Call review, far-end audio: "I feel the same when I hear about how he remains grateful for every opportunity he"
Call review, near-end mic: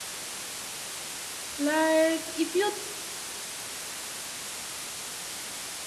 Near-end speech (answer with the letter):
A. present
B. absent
A